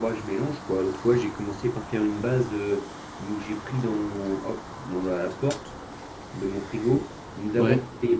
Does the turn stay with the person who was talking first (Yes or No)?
Yes